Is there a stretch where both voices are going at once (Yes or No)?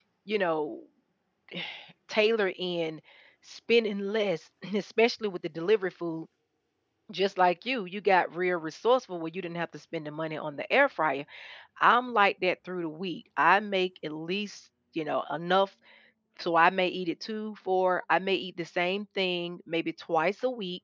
No